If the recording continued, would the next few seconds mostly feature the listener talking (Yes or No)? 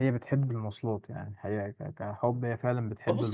Yes